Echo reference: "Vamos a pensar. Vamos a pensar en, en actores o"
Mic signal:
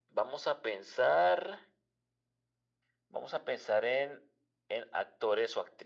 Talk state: echo only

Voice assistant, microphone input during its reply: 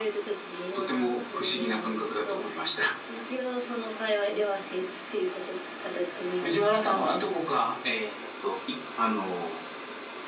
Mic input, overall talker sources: echo only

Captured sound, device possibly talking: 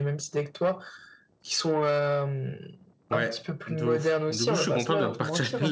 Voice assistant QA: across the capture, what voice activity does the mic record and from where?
both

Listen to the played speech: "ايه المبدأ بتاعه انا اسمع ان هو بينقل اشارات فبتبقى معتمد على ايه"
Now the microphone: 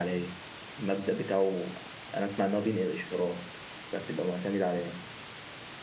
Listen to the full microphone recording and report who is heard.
echo only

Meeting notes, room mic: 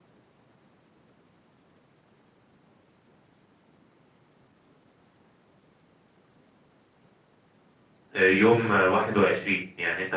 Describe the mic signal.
user only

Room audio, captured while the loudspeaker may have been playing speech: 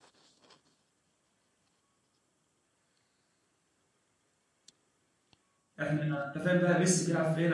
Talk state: user only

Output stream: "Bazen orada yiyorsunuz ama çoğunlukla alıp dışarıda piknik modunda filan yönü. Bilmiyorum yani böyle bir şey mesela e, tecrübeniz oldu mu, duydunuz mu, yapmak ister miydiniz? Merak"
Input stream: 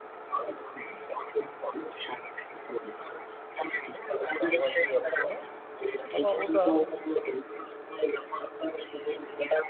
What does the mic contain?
both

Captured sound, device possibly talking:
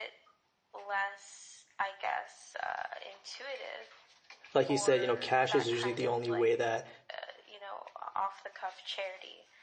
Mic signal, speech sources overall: both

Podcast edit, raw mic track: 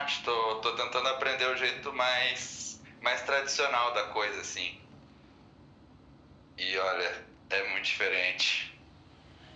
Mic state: echo only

